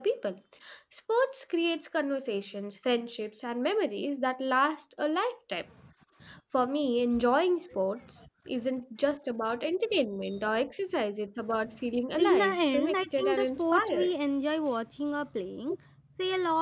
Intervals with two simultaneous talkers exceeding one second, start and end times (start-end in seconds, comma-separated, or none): 12.2-14.1